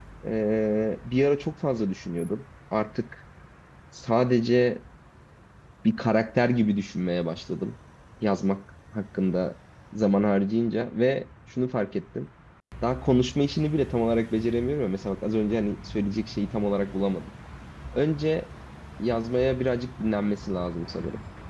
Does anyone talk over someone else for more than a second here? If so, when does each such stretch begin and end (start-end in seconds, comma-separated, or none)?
none